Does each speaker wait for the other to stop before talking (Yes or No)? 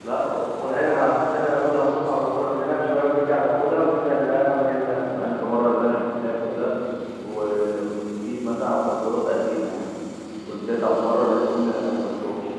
Yes